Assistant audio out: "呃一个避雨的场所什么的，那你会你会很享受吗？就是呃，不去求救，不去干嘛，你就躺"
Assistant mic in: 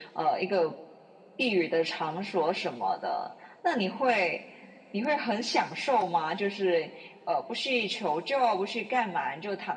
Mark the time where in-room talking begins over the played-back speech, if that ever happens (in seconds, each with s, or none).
none